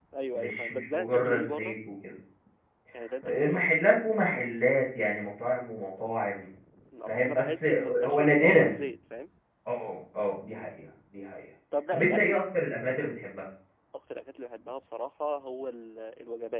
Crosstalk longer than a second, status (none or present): present